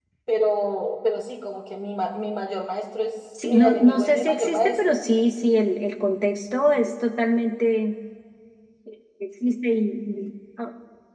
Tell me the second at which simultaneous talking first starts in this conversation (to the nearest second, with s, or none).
3 s